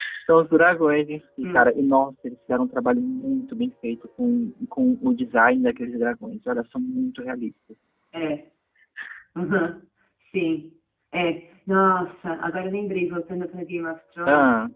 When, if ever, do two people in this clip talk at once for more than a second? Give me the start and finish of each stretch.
none

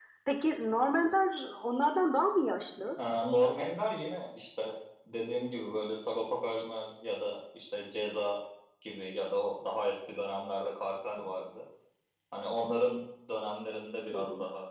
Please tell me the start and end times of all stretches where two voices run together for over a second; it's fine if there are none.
none

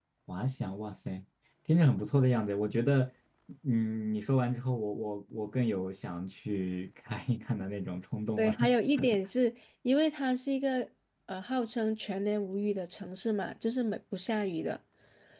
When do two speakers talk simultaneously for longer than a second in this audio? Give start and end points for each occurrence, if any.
none

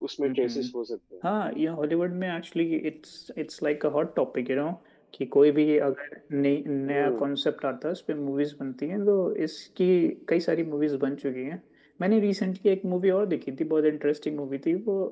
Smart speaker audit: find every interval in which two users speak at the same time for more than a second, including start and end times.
none

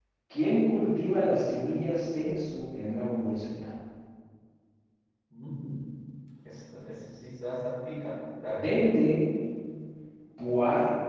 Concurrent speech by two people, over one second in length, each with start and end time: none

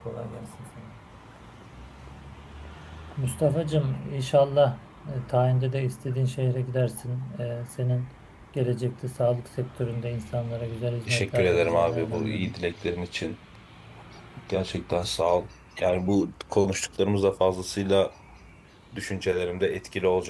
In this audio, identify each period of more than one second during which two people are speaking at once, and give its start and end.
11.1-12.6

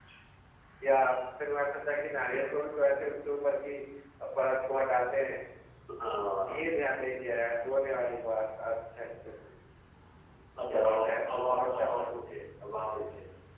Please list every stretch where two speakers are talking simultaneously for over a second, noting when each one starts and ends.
10.7-12.1

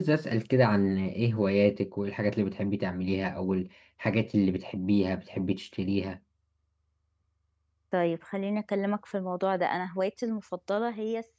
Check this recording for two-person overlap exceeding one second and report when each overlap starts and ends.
none

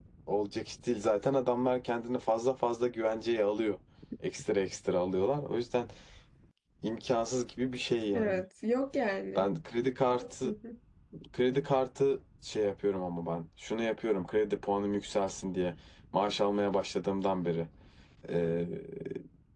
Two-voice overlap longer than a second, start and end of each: none

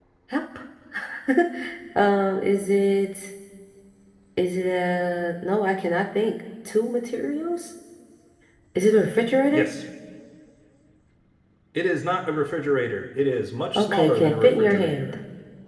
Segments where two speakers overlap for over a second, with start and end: 13.8-15.1

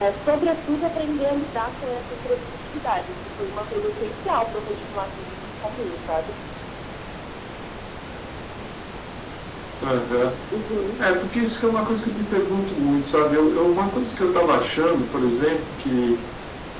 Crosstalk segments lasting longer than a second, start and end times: none

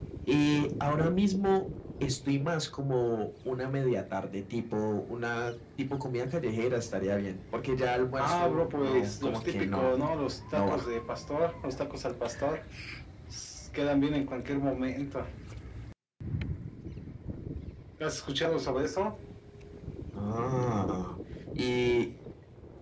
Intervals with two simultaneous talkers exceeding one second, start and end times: 8.2-10.0

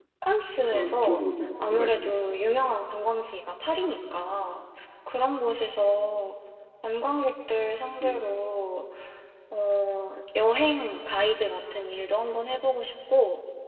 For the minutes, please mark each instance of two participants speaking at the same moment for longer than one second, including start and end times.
0.6-2.1

